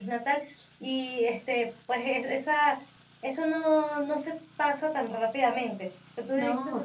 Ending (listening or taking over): listening